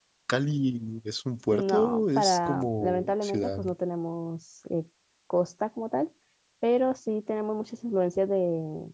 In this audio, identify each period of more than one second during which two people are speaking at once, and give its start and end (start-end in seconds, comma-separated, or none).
1.5-3.6